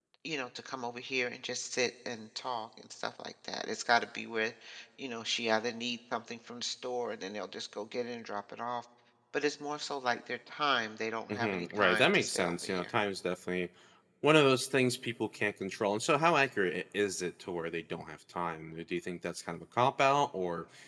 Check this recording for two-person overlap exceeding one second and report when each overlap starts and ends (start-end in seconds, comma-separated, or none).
11.3-12.9